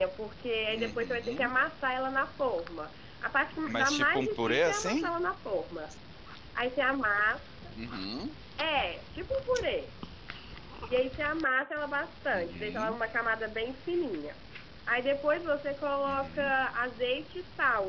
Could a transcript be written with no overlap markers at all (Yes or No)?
No